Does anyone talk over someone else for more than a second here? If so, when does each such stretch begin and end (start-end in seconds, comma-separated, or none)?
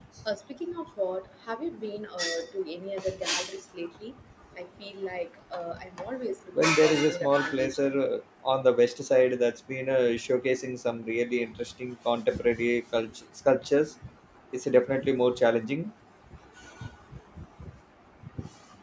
6.6-7.9